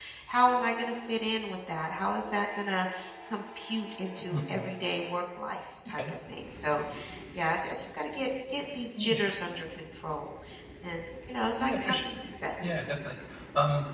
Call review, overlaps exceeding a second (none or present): none